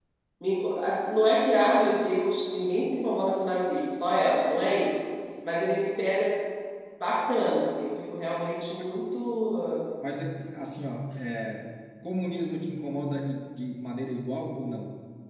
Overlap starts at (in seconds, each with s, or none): none